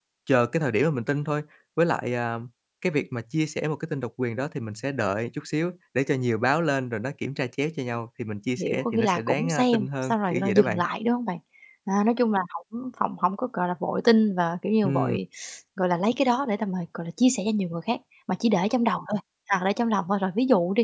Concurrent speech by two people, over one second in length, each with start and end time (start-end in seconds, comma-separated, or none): 8.6-10.8